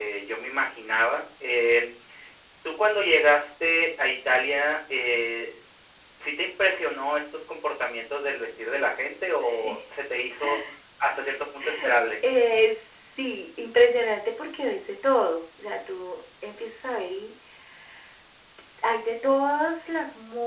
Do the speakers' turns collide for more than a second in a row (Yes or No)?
No